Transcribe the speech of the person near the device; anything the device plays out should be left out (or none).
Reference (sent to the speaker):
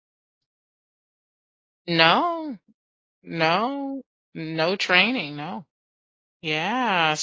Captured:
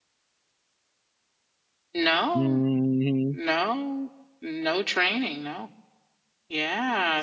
Mhm.